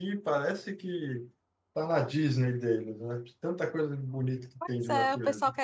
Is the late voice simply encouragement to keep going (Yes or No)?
No